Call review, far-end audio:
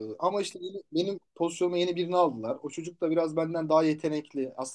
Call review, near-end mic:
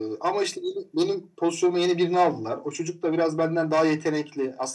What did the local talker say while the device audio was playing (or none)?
none